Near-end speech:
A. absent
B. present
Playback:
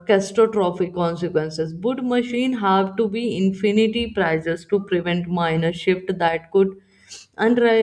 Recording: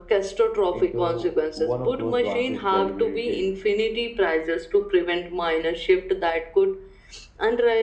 B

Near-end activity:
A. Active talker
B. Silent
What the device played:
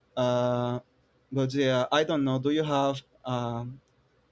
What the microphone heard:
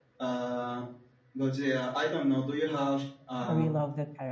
A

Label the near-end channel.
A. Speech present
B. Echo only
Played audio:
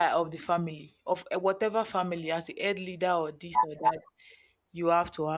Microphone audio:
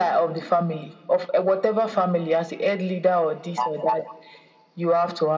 B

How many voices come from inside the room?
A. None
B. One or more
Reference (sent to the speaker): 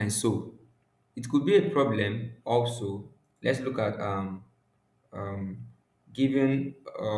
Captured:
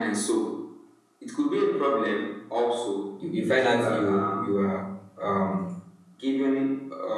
B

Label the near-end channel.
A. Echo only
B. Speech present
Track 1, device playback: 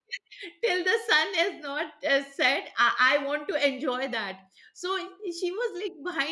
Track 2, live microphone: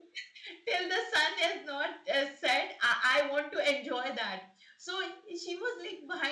A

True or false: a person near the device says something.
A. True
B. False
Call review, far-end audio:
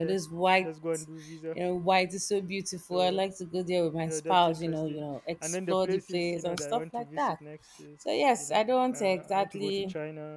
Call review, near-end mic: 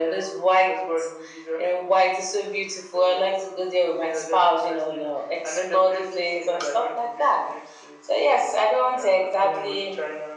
A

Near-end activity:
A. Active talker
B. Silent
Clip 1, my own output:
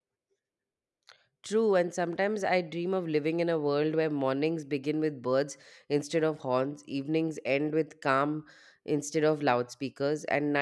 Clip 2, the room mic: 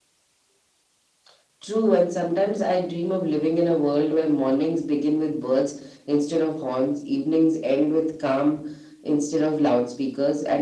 B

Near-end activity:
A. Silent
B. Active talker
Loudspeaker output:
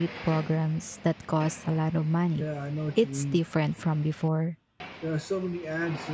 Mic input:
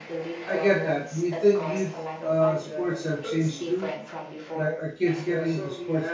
B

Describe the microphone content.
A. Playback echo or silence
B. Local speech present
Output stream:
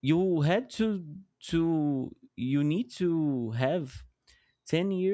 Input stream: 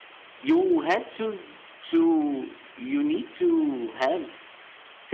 A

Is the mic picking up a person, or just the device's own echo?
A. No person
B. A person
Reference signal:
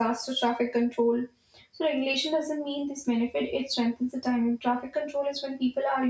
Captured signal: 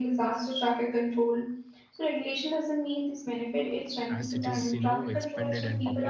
B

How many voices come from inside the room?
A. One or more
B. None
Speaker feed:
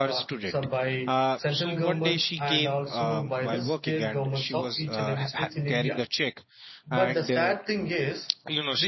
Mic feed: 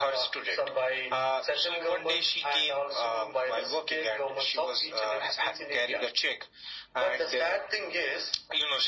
B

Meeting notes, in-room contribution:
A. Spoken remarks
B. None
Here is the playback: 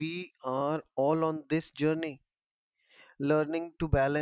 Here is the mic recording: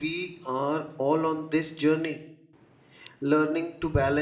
B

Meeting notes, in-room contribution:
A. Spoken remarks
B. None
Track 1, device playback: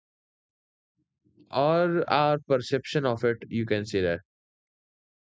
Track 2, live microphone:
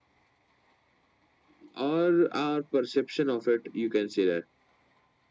B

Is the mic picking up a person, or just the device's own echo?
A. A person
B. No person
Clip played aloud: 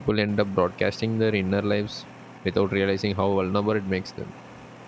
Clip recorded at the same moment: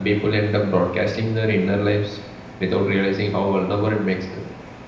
B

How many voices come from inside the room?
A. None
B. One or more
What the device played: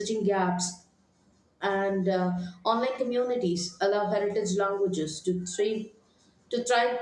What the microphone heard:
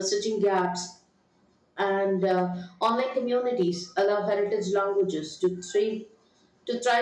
A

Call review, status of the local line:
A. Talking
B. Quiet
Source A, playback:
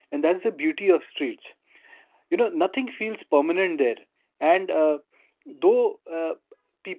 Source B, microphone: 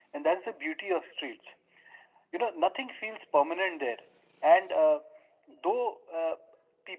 B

